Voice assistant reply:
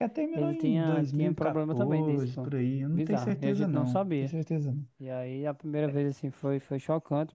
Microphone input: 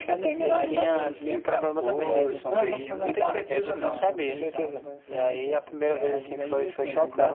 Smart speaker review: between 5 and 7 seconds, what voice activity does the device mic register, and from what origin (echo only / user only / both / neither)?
both